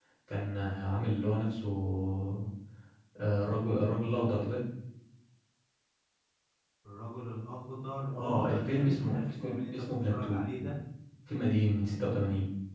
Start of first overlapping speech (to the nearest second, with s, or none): 8 s